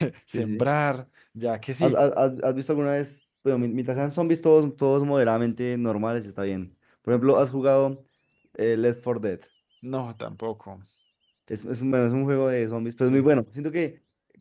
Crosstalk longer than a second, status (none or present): none